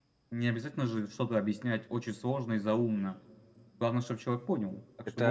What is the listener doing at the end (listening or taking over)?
taking over